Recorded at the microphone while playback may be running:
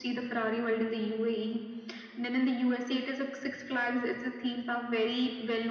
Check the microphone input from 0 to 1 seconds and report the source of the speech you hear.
echo only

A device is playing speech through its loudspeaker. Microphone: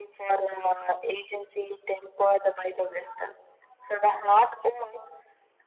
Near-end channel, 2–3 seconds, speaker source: echo only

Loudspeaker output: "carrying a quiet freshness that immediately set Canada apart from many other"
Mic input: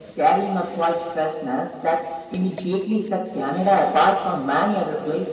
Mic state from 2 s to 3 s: echo only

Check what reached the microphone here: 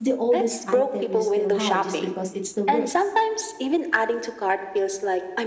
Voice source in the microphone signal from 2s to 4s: both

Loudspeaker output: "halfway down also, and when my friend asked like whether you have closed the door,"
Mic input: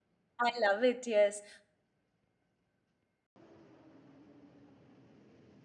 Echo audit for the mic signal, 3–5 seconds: neither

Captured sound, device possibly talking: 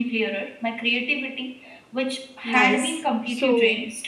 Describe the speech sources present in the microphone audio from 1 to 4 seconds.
both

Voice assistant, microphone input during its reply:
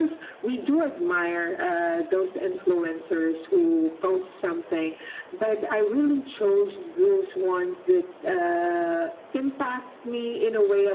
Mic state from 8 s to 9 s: echo only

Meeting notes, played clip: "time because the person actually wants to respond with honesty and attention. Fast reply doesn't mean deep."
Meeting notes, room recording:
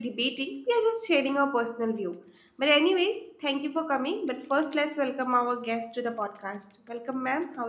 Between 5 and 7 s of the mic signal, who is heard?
user only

